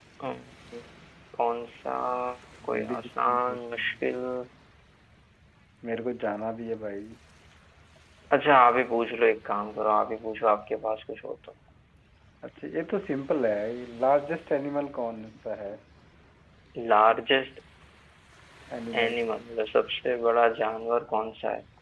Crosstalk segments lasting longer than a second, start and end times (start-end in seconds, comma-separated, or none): 2.7-3.9